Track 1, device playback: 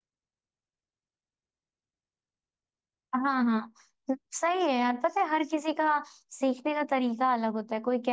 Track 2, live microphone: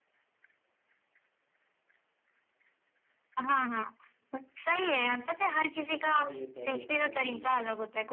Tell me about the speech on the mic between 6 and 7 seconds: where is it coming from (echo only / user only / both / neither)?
both